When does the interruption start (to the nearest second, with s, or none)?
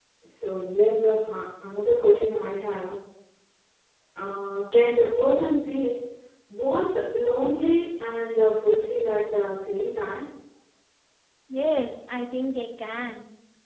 none